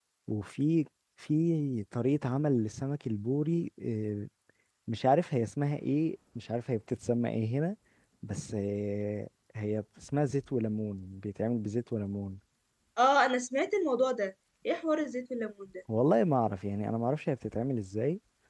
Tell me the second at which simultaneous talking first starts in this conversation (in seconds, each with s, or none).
none